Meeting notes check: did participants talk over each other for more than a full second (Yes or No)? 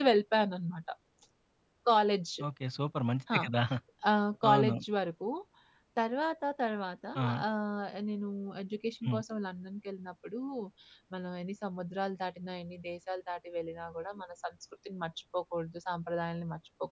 No